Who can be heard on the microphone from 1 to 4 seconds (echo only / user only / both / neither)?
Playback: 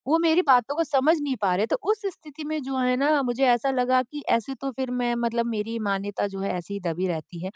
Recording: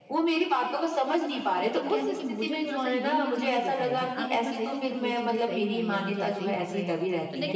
both